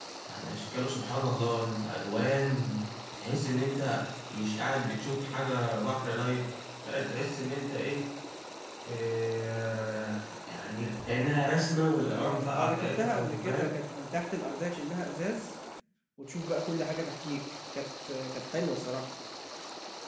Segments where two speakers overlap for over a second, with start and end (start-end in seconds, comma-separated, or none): 12.1-13.7